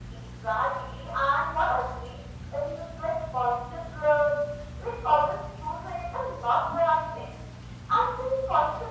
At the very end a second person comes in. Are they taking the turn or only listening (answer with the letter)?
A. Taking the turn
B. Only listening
B